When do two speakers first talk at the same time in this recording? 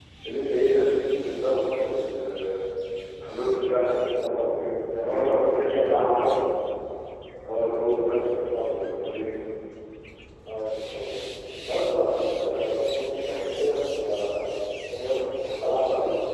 5.0 s

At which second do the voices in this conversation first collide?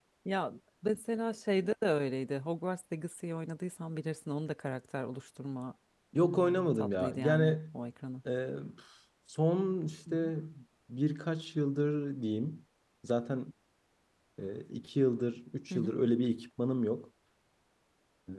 6.2 s

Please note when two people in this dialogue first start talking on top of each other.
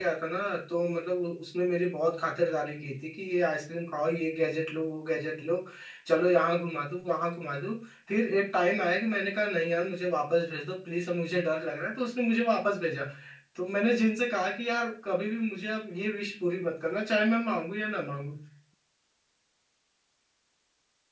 none

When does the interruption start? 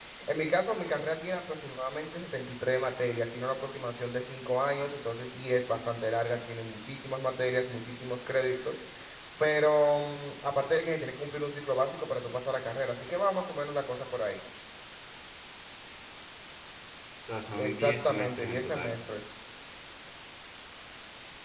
17.5 s

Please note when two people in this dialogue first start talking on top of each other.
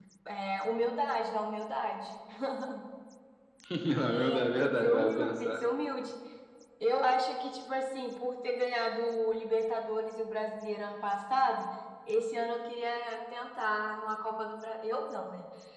4.0 s

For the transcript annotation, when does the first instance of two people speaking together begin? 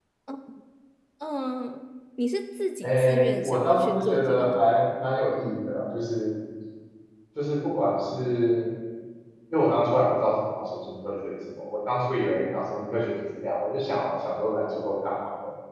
2.8 s

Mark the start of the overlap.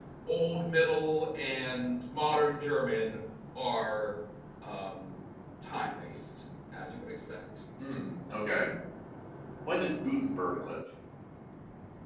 none

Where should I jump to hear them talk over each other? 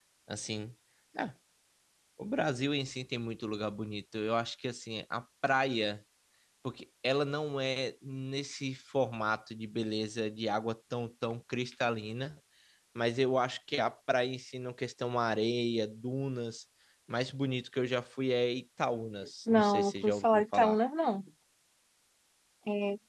19.5 s

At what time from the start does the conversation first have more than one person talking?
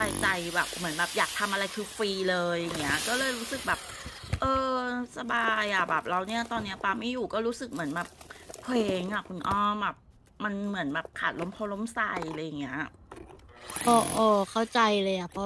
none

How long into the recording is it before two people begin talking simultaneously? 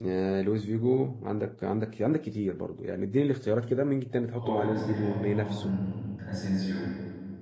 4.3 s

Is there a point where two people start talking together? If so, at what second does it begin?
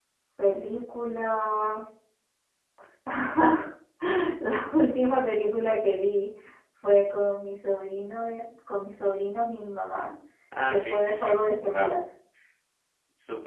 10.7 s

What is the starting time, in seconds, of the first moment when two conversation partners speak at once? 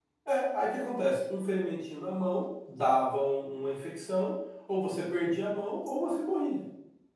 none

